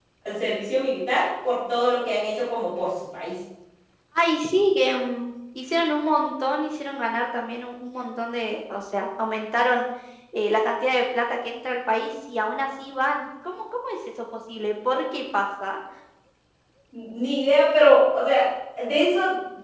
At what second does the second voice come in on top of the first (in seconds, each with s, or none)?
none